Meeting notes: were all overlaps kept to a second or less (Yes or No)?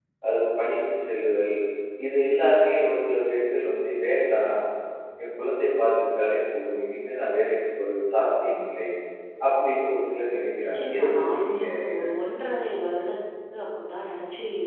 No